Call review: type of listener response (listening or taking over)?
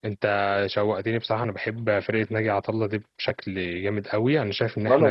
listening